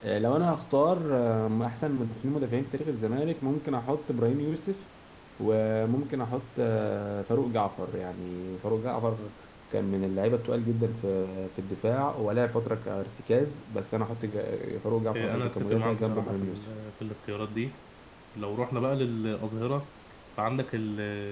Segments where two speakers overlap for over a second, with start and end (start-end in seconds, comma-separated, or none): 15.2-16.6